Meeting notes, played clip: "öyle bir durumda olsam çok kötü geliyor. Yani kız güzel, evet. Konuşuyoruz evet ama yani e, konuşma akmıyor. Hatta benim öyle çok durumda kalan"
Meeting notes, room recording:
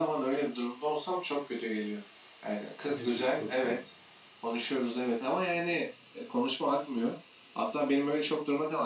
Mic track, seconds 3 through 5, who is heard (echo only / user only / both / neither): both